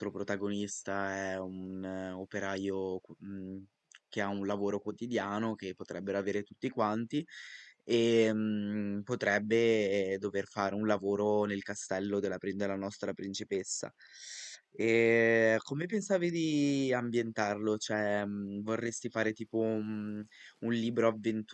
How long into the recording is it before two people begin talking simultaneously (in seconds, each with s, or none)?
none